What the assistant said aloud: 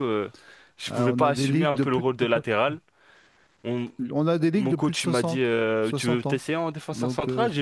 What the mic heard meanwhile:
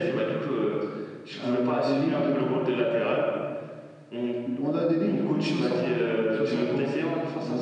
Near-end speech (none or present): none